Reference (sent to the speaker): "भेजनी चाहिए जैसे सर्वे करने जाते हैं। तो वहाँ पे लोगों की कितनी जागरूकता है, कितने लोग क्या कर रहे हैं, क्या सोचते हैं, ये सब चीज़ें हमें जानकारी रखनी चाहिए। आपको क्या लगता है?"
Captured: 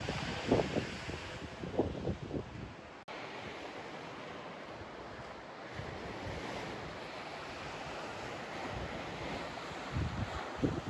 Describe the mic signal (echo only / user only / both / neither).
neither